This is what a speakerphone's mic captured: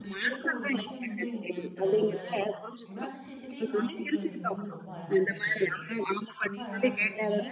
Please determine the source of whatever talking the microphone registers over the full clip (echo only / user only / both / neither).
both